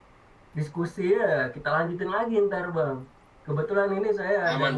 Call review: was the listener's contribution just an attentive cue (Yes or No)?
Yes